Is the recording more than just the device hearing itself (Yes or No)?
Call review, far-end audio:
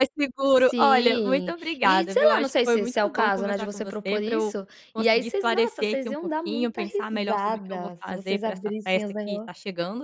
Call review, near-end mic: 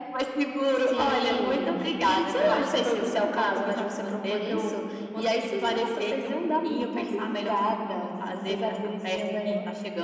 No